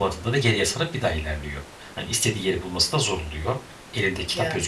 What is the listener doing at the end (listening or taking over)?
listening